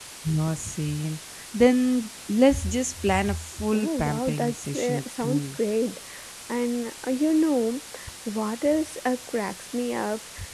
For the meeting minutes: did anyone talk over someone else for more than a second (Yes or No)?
Yes